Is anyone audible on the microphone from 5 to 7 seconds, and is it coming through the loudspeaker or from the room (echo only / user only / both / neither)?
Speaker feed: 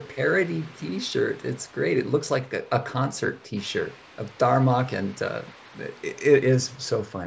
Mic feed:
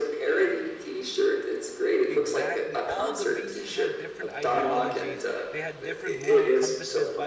both